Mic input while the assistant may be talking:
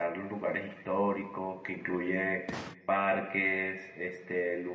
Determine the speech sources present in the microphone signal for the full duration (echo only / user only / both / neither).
user only